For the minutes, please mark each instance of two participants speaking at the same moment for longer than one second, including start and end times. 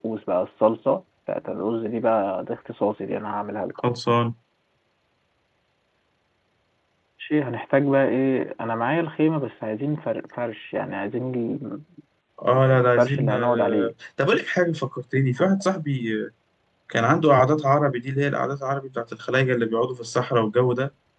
12.7-13.9

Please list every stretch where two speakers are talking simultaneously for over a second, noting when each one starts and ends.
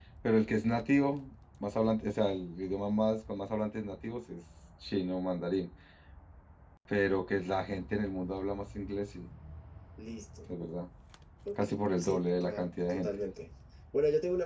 11.6-13.1

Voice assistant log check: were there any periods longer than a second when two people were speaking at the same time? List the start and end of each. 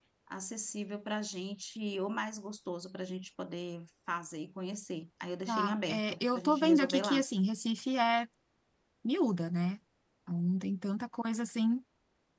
5.5-7.2

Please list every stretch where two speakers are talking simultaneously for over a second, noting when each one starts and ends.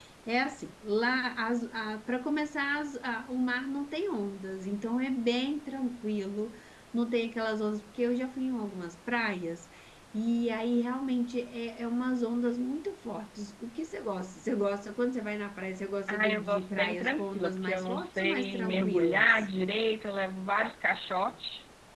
16.1-19.3

